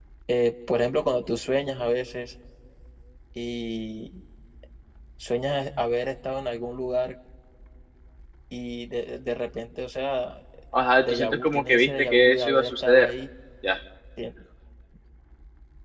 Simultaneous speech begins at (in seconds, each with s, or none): 11.0 s